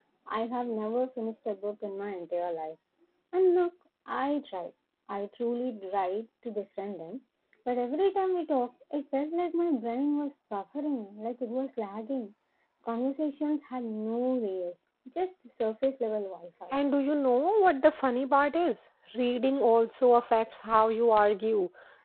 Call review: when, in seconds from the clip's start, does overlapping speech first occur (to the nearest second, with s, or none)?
none